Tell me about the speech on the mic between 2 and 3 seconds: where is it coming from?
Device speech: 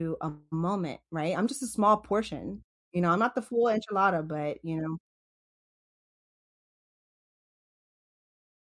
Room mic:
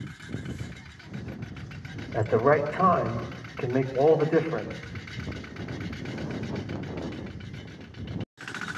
user only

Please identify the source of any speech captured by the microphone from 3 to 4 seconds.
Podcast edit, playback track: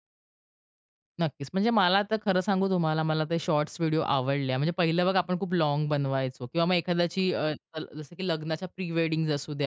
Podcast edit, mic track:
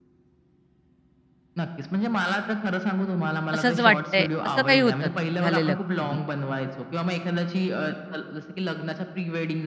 both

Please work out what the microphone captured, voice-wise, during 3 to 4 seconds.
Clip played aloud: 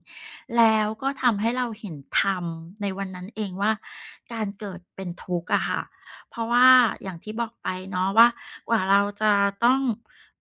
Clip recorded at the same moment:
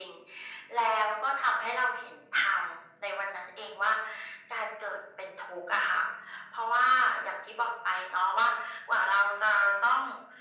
echo only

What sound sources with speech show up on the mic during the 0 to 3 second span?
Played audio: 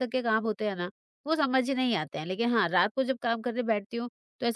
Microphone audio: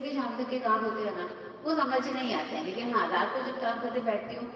echo only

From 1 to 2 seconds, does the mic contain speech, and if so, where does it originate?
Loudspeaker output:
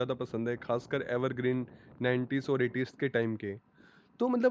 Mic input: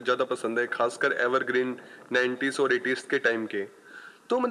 echo only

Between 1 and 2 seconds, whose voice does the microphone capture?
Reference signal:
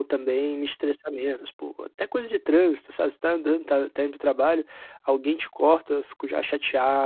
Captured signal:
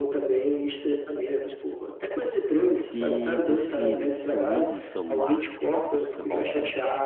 echo only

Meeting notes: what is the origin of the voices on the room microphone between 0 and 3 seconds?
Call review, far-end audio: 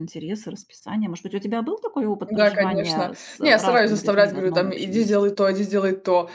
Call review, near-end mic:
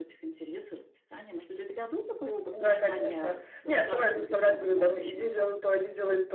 echo only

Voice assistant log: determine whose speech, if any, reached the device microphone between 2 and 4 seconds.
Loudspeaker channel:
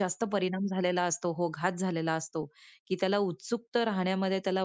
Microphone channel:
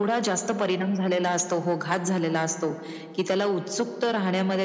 echo only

